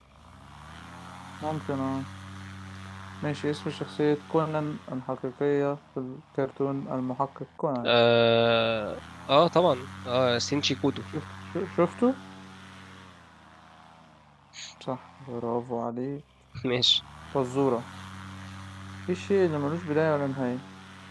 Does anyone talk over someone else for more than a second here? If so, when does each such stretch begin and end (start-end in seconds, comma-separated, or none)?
none